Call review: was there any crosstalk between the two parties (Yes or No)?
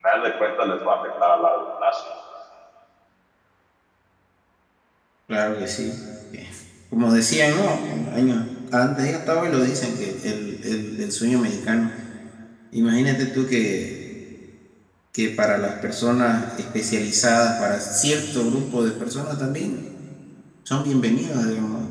No